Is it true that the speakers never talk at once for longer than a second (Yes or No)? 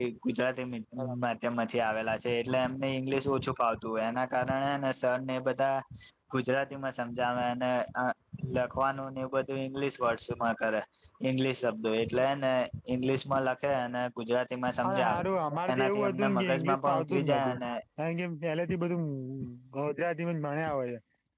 No